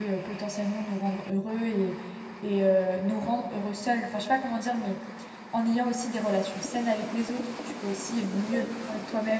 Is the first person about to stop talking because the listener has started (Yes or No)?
No